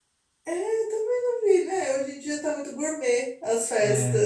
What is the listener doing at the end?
listening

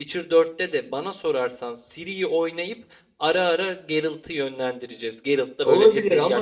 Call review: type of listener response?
taking over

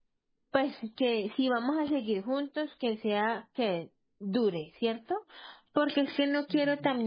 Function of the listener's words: listening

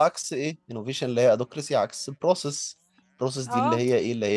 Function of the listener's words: taking over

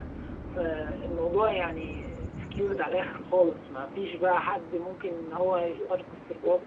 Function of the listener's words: taking over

